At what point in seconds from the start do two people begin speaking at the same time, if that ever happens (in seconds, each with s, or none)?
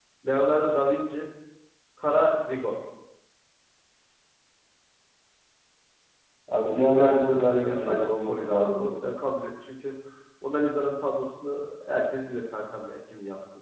7.0 s